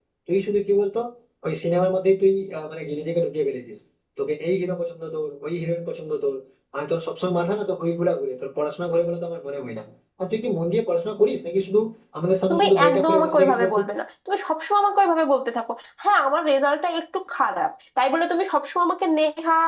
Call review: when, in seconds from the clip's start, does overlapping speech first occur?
12 s

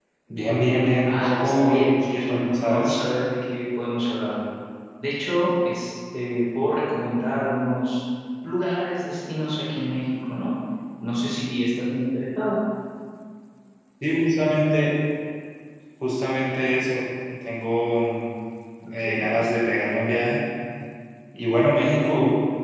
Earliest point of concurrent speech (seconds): 1 s

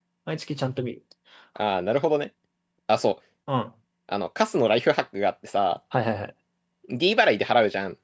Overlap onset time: none

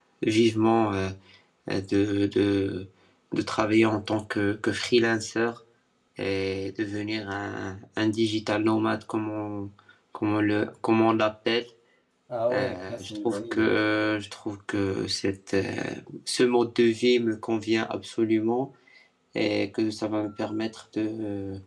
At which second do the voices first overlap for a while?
13 s

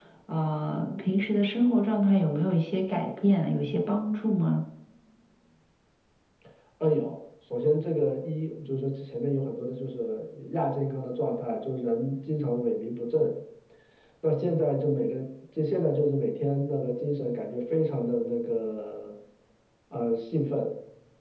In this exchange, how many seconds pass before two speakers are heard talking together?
none

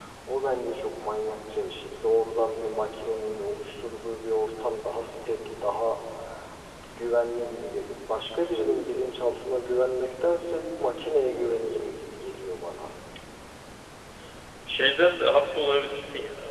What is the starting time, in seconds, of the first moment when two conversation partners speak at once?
none

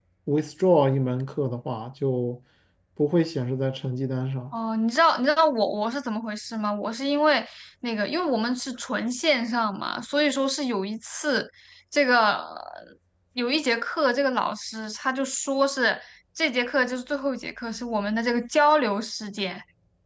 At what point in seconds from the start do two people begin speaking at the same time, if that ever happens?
none

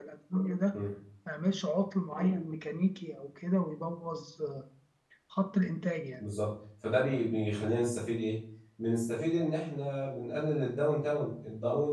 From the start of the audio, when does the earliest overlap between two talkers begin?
none

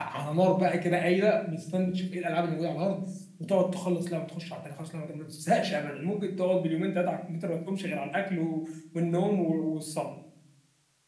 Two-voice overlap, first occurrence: none

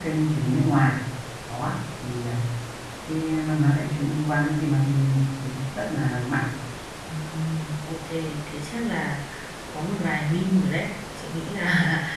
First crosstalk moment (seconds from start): none

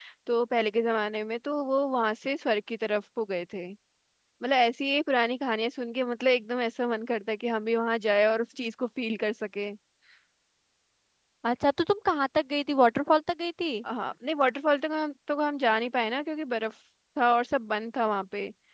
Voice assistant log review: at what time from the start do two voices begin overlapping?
none

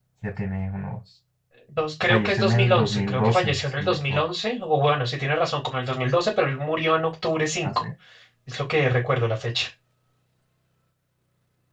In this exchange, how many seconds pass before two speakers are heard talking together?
2 s

